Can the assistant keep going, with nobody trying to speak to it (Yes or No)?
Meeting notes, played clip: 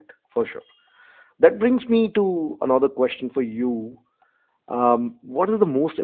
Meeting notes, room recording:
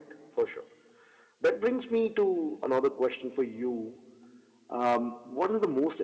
Yes